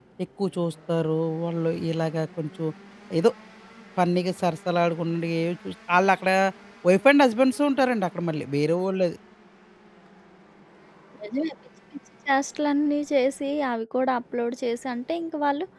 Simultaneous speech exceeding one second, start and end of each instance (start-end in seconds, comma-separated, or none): none